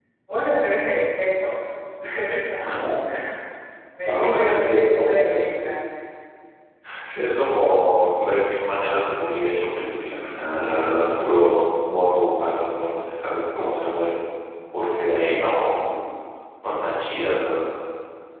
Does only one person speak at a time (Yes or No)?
No